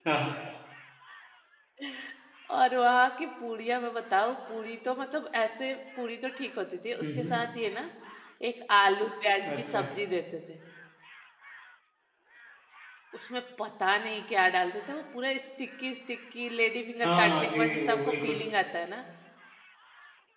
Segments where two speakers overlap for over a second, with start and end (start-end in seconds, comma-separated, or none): 17.0-18.4